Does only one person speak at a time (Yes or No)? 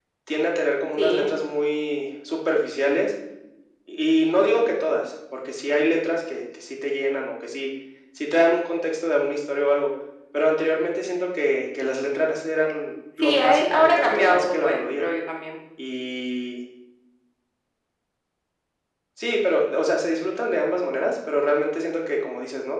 No